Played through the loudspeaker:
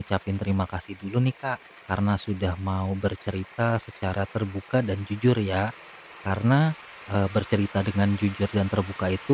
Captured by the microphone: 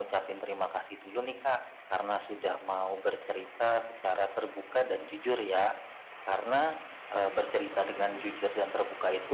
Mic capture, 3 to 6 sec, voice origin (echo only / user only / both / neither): echo only